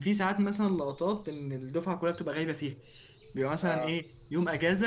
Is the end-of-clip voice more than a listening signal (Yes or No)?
No